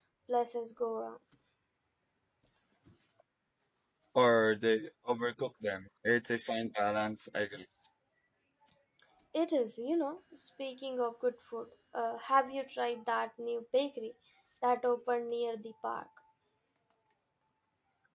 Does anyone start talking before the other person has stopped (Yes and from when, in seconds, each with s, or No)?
No